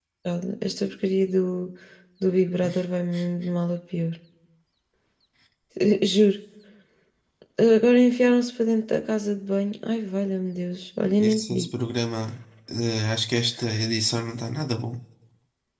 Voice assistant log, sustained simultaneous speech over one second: none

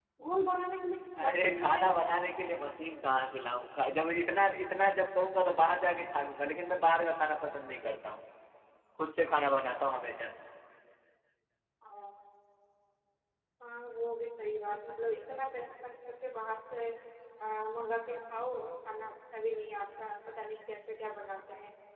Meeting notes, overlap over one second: present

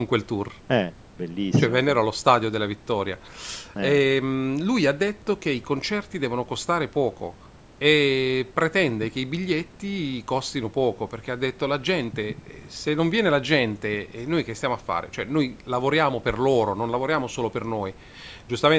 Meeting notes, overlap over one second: none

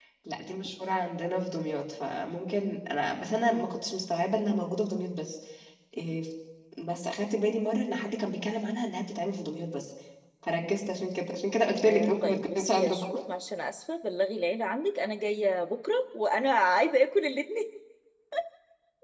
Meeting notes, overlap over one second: present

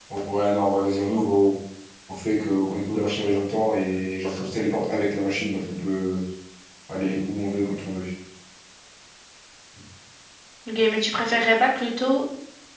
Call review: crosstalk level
none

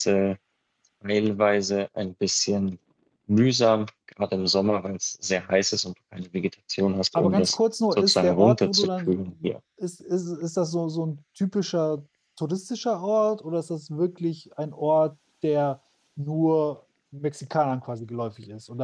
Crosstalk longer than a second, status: present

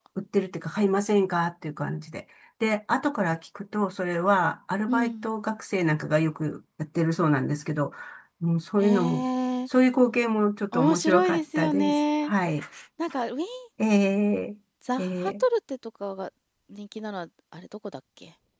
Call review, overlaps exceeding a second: present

